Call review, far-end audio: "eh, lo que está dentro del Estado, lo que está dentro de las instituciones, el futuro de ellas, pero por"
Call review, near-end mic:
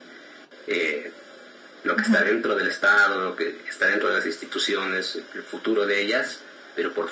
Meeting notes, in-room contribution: present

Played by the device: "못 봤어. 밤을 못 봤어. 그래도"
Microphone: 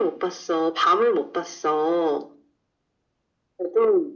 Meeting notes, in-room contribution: none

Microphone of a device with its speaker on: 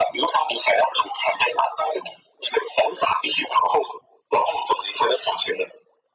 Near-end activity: none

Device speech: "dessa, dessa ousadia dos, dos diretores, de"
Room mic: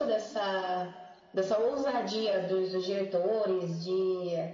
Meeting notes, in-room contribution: none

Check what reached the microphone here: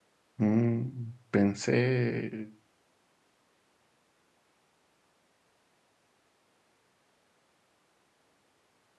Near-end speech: present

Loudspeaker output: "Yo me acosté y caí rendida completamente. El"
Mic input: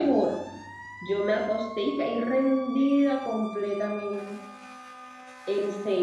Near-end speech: none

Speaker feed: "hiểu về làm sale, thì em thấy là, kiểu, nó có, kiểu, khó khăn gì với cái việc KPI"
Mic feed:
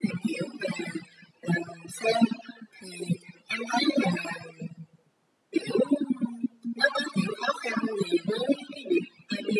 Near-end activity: none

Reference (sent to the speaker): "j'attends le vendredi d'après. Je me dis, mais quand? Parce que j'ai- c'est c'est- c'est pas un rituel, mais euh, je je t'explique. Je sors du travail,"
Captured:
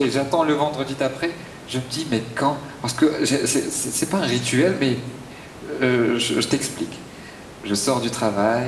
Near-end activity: none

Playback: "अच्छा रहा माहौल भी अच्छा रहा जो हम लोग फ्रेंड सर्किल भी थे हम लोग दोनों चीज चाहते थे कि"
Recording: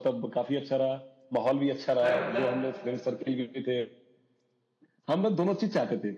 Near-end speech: present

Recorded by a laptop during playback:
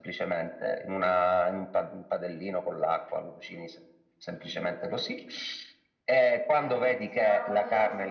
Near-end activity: present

